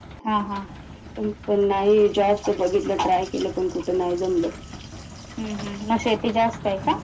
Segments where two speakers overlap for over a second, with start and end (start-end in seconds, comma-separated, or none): none